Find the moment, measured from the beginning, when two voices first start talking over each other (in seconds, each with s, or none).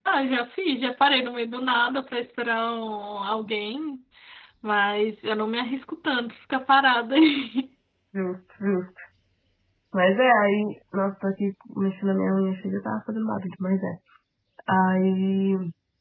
none